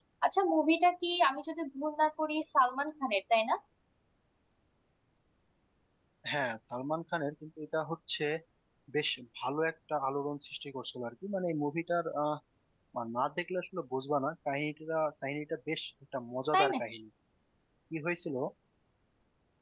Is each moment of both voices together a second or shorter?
Yes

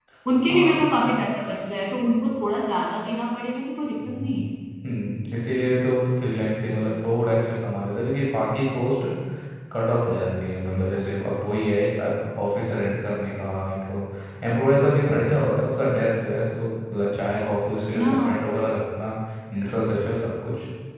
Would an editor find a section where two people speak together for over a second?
No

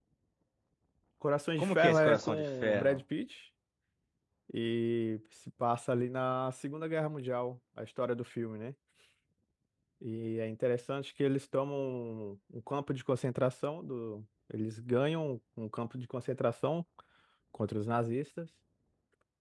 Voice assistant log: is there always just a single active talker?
No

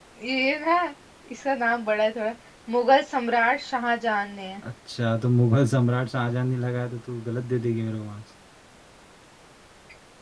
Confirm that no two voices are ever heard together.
Yes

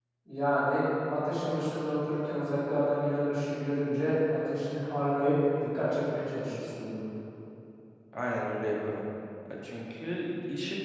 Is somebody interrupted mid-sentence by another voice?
No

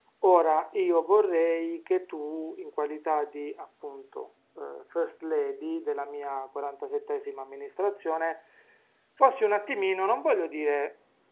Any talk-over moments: No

